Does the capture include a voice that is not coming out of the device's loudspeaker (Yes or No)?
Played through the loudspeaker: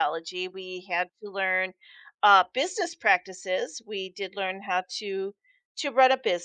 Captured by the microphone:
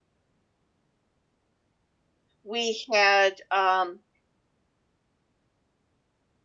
Yes